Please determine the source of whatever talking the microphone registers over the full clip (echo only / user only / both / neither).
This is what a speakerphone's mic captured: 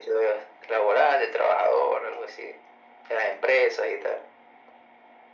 echo only